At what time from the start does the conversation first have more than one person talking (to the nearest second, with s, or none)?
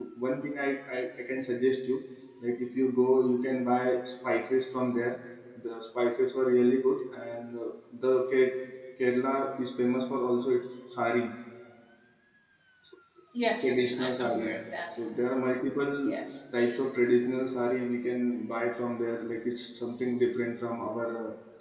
14 s